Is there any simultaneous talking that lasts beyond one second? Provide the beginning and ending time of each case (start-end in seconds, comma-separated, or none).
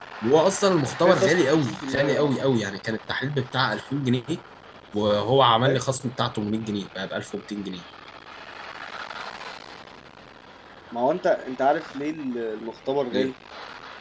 1.0-2.3